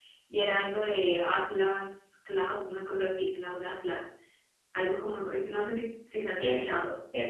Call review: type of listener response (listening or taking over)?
taking over